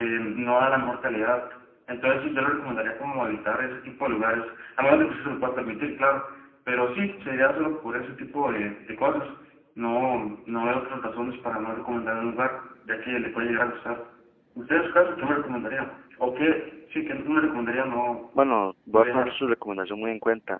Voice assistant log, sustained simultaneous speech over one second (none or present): none